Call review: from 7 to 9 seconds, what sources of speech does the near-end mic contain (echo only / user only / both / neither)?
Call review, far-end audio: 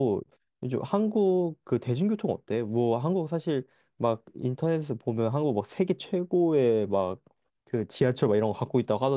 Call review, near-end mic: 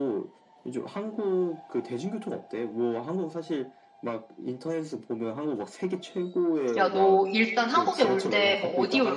both